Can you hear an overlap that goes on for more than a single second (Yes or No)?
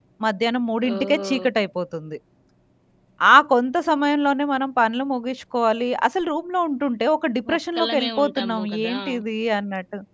Yes